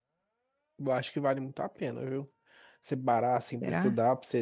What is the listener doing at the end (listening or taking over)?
listening